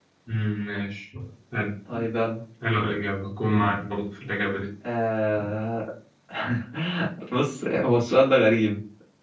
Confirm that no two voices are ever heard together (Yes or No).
Yes